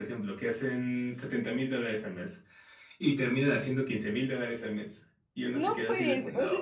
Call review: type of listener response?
taking over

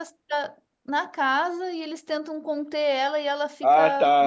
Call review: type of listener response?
taking over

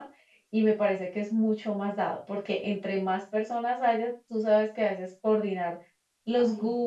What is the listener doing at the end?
listening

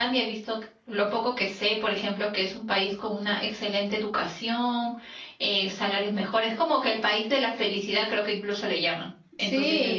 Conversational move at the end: taking over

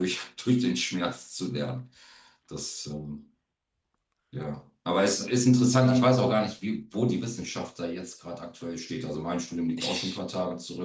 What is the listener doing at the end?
listening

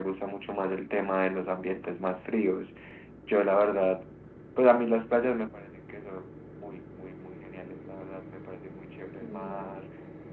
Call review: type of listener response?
listening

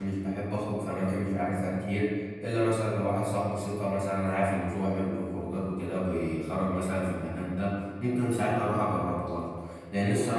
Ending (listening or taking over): listening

